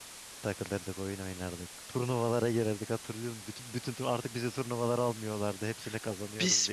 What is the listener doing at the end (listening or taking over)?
taking over